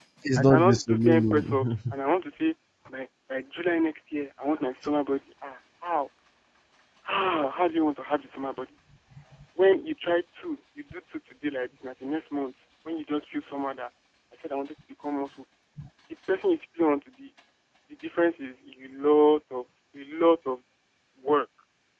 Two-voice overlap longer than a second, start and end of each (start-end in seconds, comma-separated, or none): 0.5-1.9